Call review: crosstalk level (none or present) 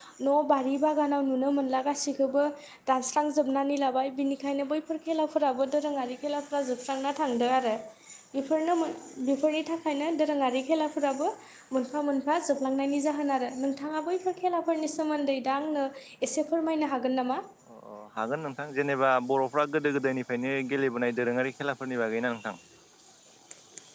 none